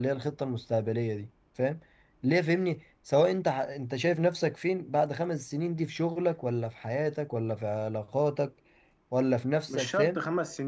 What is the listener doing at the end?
taking over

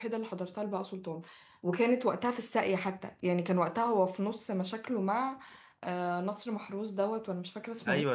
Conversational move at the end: taking over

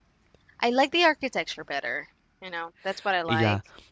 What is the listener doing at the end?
taking over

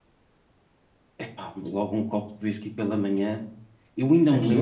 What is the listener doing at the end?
listening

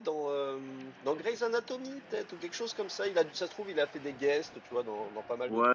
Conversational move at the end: taking over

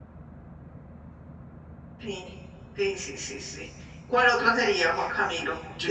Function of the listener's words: taking over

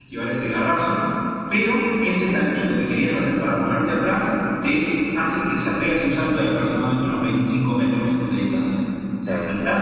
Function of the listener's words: listening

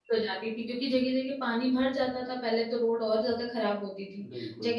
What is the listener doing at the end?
listening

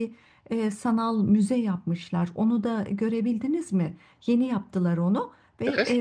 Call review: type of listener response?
listening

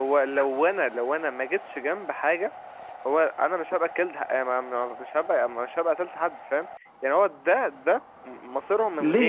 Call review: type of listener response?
taking over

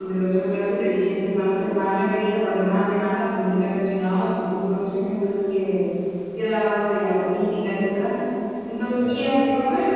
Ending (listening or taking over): listening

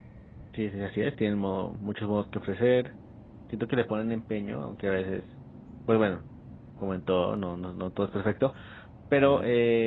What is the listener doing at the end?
listening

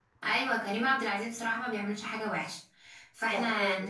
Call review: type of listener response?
listening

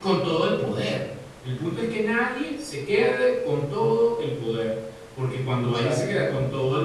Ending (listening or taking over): listening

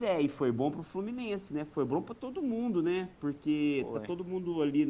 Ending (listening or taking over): listening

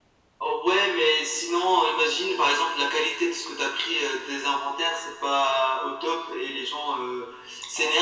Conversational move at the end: listening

